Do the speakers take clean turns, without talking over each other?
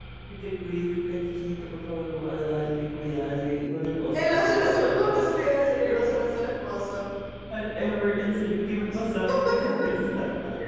No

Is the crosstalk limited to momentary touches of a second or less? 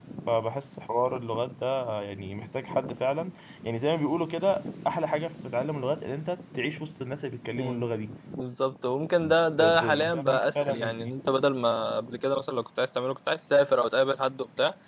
No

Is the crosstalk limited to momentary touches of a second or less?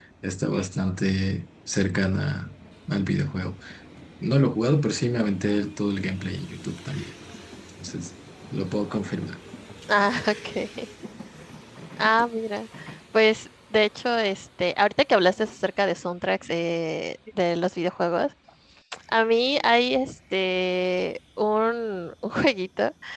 Yes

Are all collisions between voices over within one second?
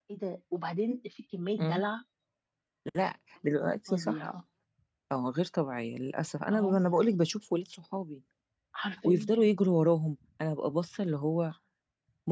Yes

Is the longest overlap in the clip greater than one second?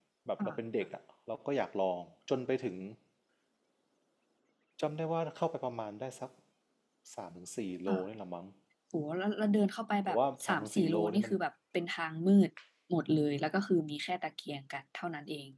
Yes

